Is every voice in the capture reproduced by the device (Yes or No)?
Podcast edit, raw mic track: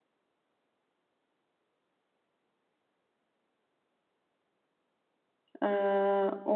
No